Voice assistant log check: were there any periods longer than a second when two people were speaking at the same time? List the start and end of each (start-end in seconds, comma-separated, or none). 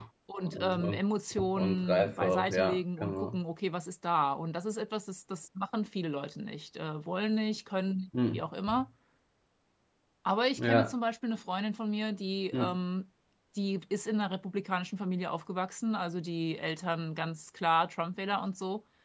1.5-3.4